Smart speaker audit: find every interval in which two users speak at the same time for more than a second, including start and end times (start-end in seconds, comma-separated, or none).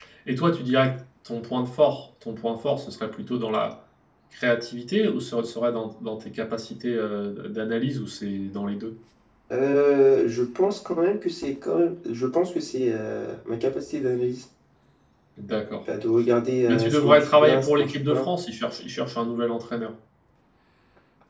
16.6-18.3